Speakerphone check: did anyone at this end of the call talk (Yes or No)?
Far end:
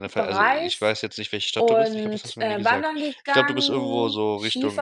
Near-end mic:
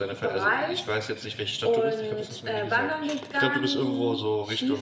No